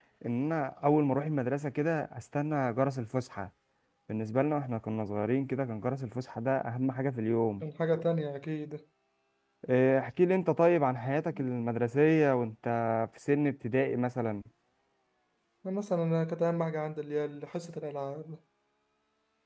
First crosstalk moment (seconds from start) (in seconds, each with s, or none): none